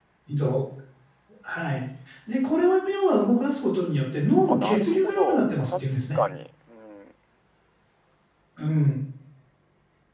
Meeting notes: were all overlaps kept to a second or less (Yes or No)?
No